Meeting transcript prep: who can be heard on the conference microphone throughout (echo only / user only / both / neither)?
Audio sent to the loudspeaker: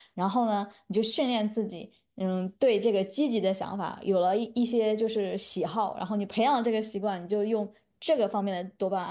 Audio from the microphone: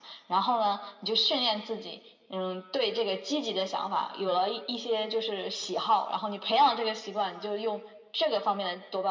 echo only